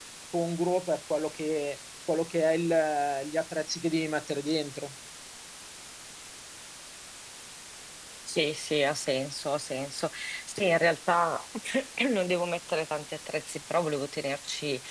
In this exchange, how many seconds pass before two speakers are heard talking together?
none

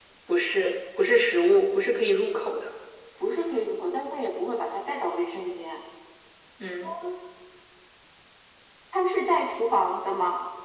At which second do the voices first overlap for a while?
none

